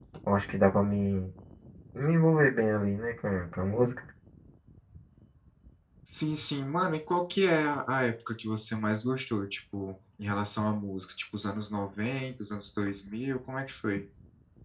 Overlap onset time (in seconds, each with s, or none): none